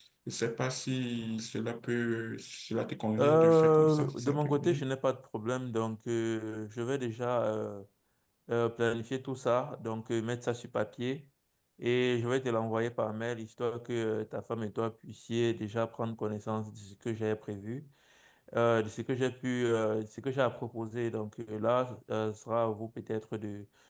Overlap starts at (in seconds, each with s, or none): 3.2 s